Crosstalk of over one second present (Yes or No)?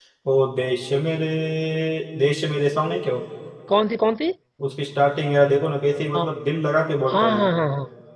No